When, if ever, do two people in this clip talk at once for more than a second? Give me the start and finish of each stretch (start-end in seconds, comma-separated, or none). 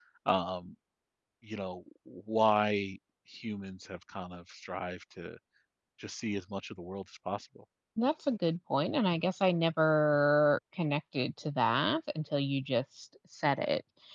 none